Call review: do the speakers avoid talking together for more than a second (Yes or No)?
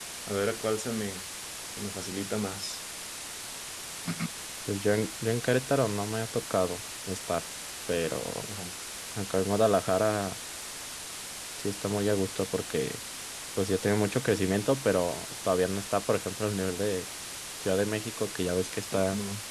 Yes